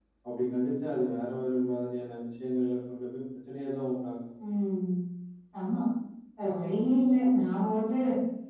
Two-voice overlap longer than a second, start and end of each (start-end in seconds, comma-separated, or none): none